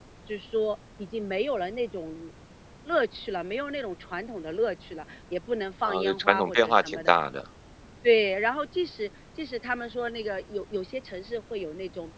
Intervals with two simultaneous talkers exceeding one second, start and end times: 5.8-7.1

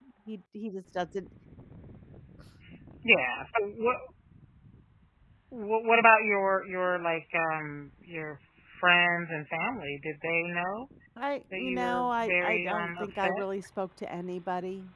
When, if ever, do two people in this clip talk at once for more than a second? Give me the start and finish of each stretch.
11.5-13.4

